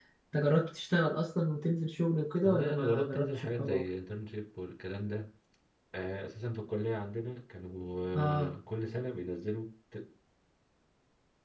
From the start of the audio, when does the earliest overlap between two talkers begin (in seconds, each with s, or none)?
2.4 s